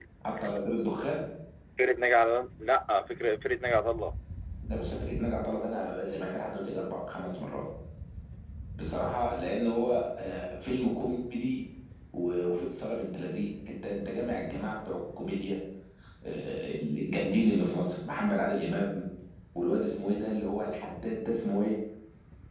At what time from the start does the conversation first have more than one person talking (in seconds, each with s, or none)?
none